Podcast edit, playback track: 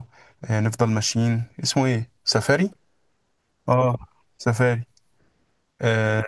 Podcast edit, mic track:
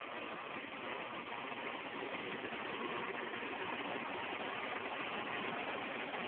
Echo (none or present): none